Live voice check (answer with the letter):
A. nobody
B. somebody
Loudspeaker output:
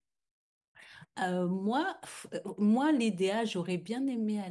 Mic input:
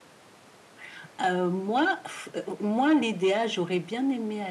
A